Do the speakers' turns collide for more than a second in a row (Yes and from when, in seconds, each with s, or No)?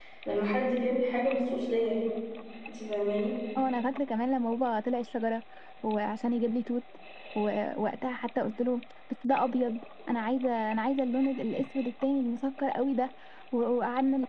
No